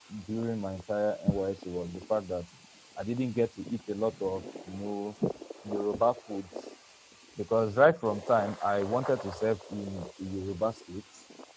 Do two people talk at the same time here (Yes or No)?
No